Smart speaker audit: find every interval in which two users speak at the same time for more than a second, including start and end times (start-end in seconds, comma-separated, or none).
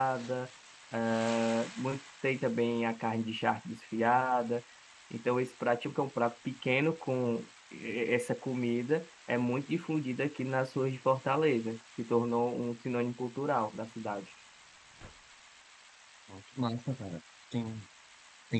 none